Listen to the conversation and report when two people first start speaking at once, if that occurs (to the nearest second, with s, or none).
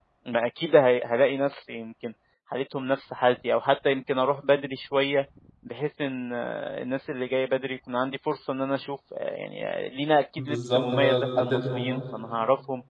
10 s